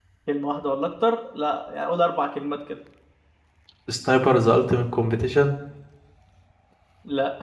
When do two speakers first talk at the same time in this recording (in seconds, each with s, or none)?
none